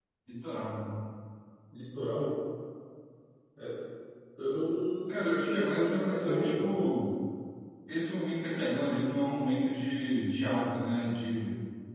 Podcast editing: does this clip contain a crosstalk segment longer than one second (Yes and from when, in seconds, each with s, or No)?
Yes, from 5.1 s